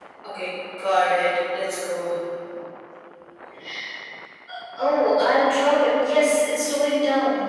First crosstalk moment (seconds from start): none

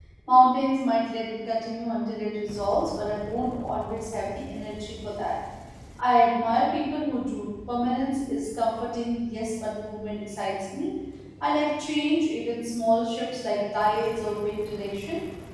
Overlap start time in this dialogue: none

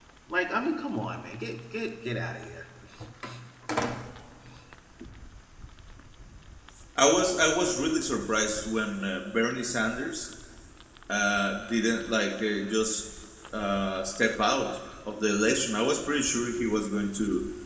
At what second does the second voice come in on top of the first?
none

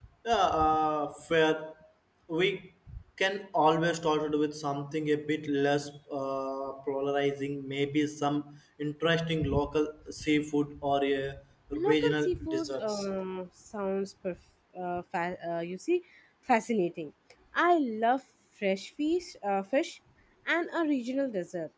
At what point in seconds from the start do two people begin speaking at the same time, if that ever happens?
12 s

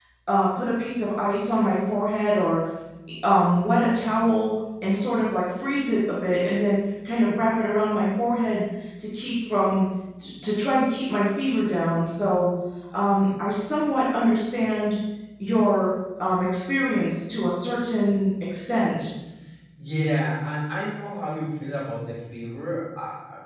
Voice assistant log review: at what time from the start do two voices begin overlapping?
none

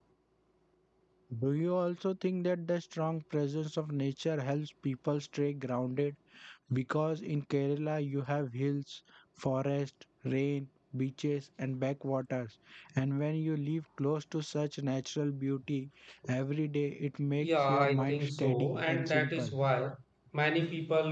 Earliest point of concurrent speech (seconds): 17 s

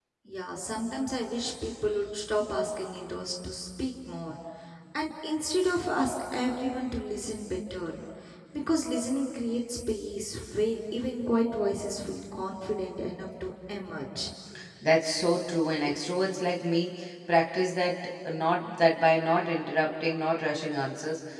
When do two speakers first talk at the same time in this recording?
none

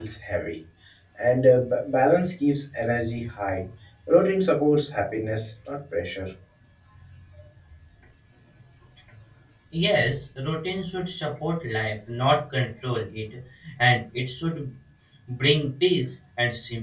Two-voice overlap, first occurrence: none

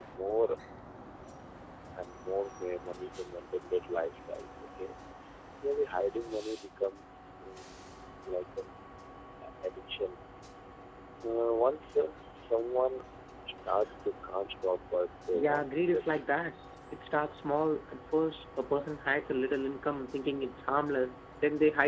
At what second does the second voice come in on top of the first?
15 s

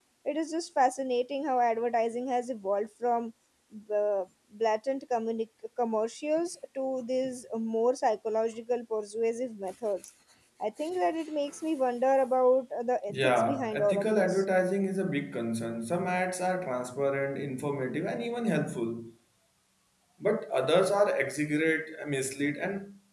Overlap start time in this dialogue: 13 s

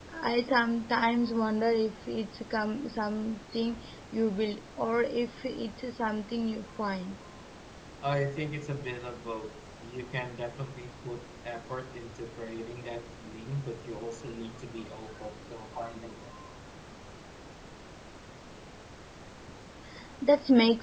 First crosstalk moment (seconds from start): none

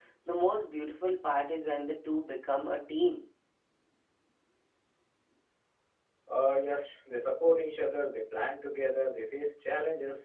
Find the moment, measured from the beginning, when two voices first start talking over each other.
none

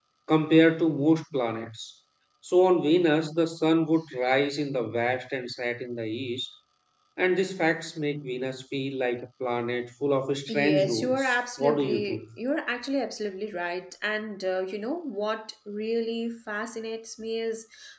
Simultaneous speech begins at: 10 s

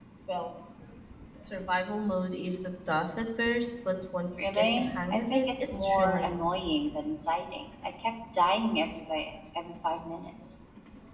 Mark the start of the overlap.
4 s

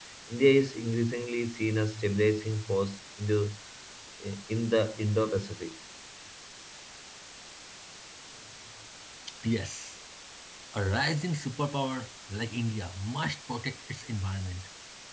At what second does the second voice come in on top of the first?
none

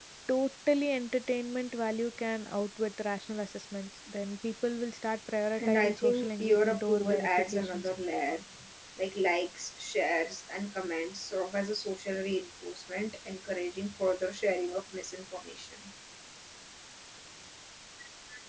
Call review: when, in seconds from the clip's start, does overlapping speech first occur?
6 s

